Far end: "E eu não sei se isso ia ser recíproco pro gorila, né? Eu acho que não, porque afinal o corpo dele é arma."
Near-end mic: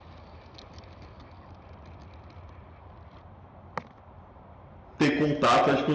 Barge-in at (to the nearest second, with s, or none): 5 s